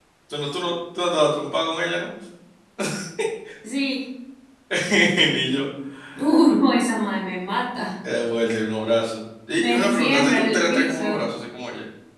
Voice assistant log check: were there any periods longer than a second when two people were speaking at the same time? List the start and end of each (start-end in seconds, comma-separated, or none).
9.6-11.2